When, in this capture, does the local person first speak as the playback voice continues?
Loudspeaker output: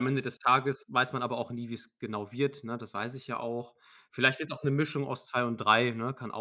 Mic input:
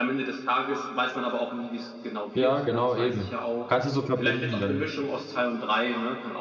2 s

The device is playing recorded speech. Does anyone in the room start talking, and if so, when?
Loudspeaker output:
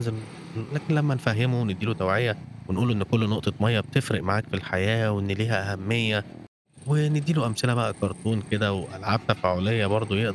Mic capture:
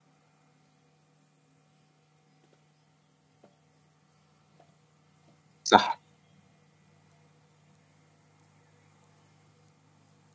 6 s

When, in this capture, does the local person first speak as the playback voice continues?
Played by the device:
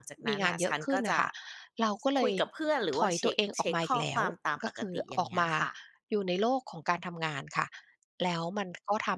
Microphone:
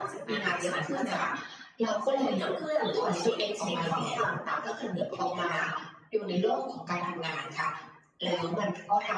none

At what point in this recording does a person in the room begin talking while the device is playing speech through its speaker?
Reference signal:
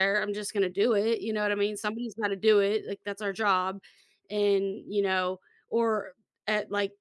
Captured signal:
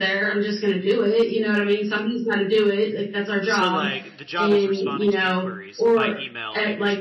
3 s

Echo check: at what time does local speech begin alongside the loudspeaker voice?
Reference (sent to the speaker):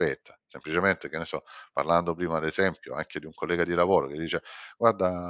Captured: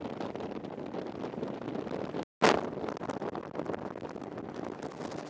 none

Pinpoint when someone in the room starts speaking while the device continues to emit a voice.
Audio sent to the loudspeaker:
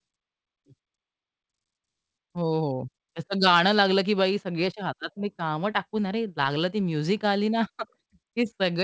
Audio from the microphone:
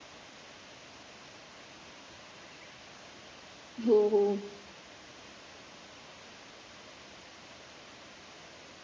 4 s

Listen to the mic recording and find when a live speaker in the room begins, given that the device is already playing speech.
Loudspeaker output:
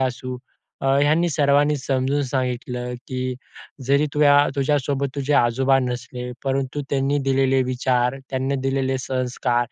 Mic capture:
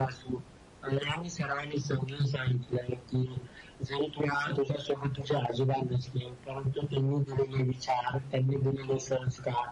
none

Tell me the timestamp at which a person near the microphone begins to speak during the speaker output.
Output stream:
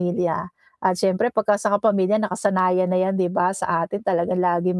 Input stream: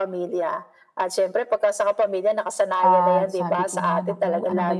3 s

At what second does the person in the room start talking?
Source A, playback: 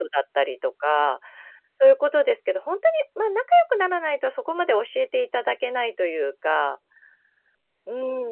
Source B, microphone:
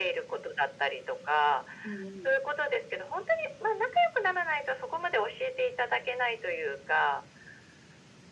2 s

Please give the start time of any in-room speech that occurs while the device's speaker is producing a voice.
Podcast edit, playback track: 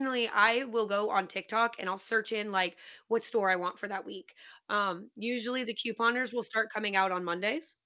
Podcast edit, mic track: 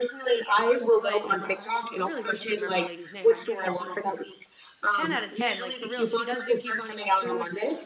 1 s

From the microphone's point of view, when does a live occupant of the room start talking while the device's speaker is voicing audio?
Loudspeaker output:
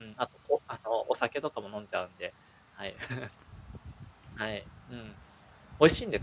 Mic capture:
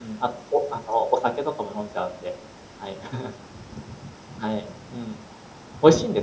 none

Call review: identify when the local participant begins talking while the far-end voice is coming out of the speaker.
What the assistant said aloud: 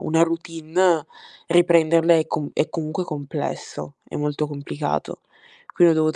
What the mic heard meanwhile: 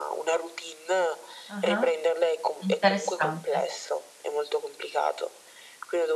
1 s

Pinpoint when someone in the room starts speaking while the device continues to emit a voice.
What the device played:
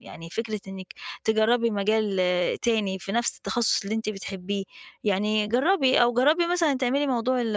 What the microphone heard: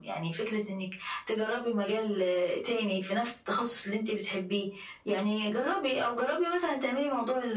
none

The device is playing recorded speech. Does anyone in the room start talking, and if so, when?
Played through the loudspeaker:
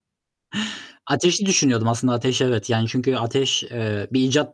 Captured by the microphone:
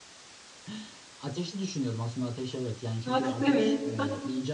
3 s

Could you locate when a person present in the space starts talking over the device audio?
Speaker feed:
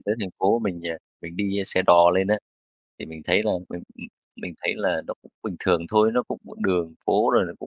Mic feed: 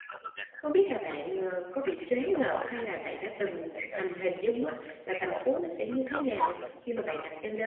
1 s

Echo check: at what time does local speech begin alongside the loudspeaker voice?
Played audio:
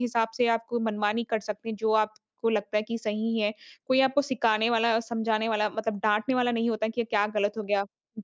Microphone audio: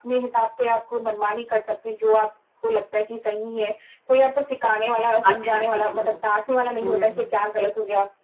5 s

